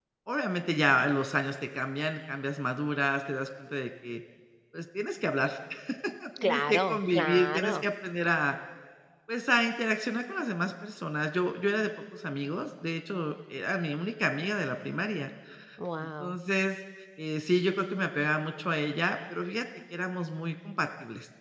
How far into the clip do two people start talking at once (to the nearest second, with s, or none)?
6 s